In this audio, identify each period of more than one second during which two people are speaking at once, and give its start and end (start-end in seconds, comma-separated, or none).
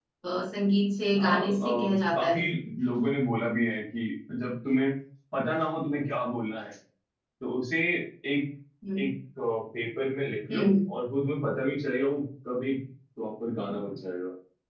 1.1-2.4